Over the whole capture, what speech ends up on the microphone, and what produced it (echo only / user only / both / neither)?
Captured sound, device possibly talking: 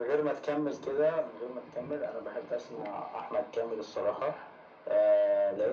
echo only